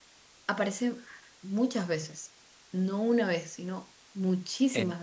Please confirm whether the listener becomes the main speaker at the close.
Yes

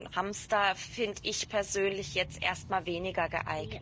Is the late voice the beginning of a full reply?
Yes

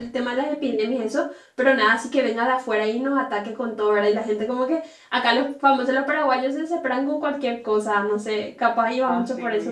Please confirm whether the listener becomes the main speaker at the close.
Yes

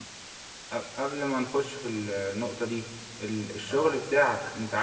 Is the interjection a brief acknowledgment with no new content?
Yes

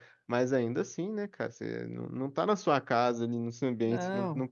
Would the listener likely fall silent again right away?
Yes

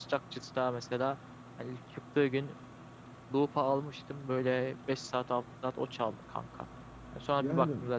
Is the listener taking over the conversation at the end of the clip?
No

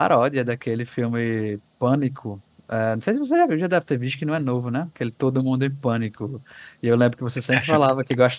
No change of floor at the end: Yes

